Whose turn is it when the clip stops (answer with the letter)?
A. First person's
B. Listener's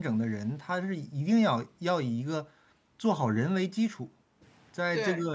A